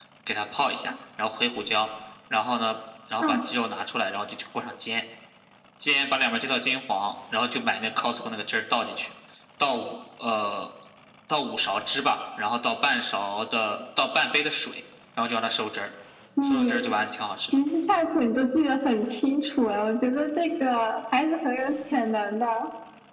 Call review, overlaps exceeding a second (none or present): none